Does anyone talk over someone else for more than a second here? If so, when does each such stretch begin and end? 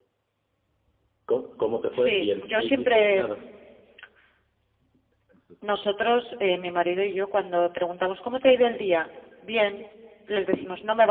1.9-3.2

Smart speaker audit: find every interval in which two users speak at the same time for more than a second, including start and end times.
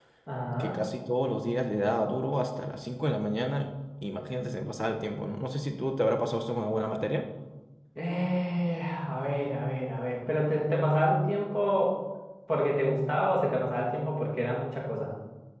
none

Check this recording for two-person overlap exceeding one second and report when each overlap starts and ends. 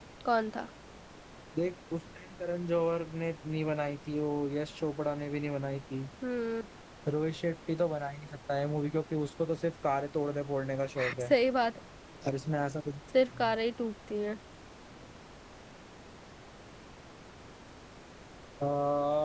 none

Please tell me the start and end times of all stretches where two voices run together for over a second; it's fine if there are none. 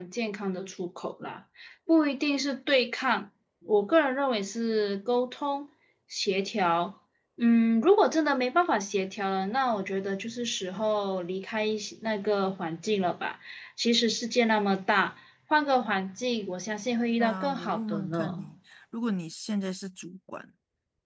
17.2-18.5

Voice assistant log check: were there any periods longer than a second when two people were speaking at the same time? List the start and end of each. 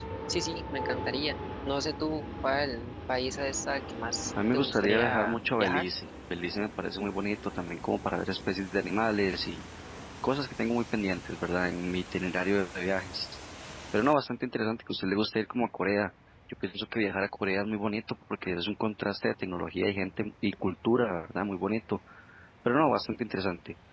4.5-5.8

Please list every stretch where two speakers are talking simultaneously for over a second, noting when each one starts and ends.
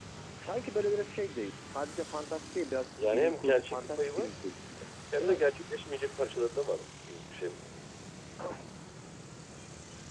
3.0-4.3

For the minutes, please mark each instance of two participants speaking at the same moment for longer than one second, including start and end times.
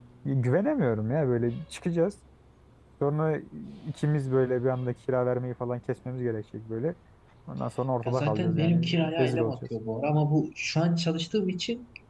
8.1-9.5

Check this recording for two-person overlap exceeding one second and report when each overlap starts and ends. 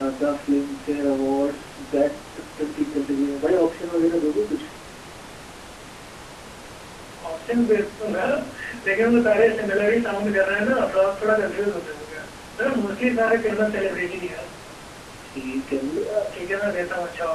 none

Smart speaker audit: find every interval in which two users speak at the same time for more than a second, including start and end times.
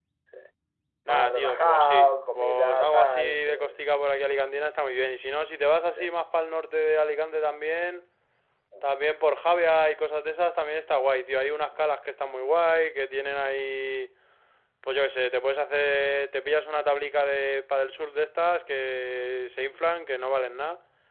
1.1-3.7

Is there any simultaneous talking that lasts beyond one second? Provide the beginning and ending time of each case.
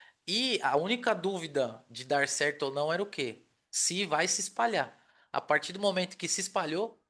none

